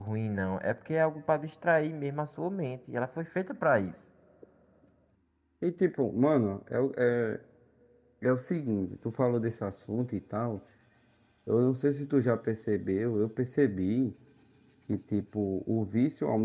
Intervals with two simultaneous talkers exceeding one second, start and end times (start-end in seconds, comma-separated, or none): none